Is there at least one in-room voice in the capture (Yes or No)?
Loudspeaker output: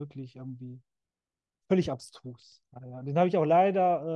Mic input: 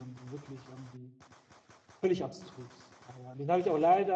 No